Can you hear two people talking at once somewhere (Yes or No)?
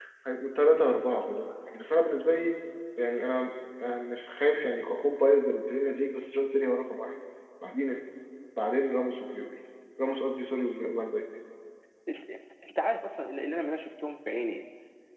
No